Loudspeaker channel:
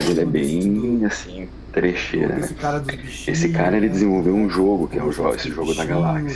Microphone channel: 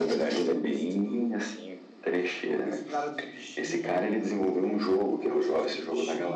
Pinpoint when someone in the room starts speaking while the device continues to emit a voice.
5.2 s

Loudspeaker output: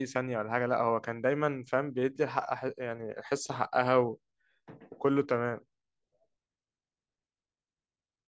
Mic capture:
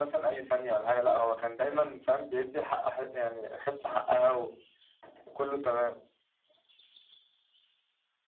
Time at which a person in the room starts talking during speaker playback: none

